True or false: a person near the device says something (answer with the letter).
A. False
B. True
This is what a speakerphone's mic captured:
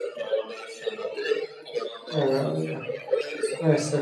B